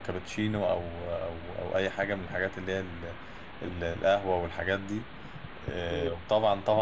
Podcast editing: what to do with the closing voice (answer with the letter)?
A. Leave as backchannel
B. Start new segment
A